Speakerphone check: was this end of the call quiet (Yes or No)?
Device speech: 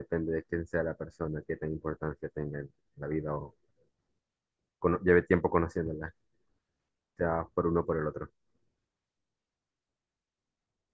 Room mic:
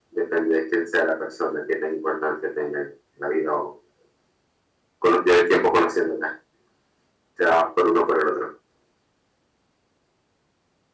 Yes